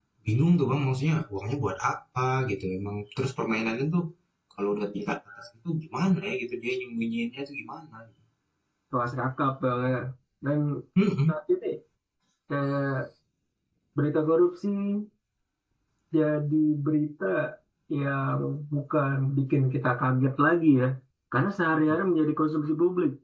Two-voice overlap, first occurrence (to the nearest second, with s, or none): none